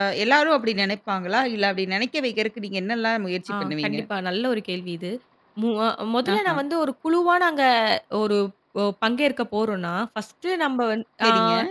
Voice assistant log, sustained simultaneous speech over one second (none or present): none